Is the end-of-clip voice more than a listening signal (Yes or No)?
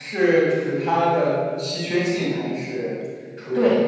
Yes